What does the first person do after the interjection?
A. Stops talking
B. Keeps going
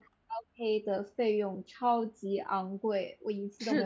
A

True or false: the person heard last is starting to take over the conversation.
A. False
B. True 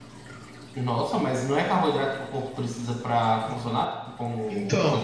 B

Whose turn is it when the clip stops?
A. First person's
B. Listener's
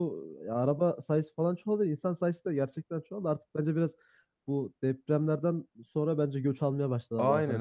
B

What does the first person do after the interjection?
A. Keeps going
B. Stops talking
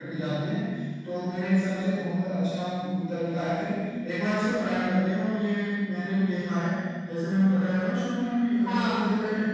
A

